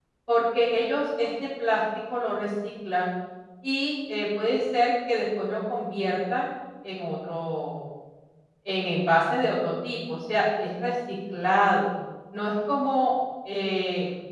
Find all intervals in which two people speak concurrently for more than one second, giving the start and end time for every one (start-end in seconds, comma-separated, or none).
none